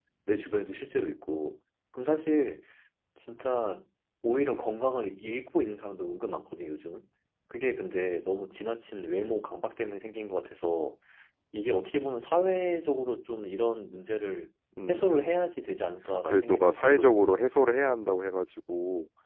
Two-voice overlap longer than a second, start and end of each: 16.2-17.5

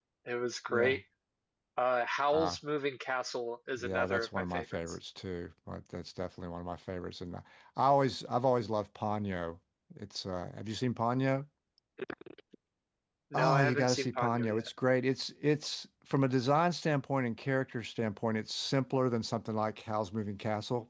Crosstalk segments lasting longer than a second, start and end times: 3.8-5.0, 13.3-14.7

